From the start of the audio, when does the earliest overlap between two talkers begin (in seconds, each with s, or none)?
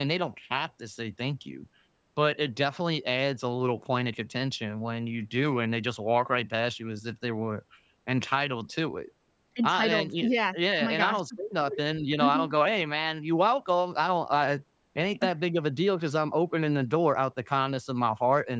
9.6 s